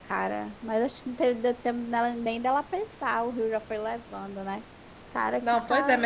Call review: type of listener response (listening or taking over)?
taking over